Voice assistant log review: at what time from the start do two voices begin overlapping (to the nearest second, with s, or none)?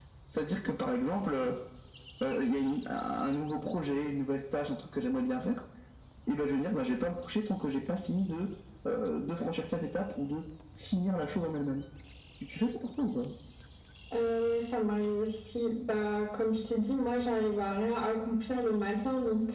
none